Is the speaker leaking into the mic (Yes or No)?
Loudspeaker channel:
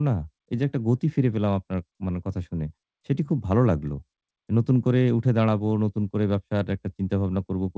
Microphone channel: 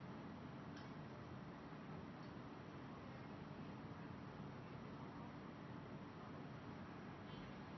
No